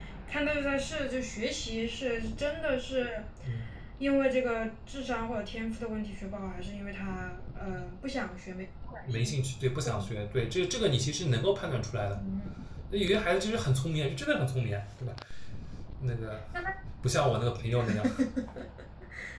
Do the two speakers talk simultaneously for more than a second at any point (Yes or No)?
No